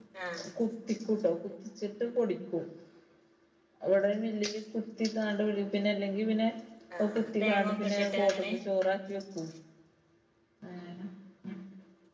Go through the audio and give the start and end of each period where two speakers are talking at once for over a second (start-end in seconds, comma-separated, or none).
7.2-8.5